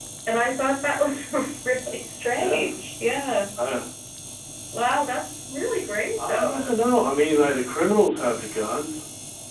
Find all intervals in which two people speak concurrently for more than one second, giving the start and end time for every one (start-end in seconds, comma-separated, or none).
none